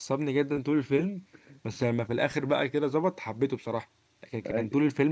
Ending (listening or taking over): listening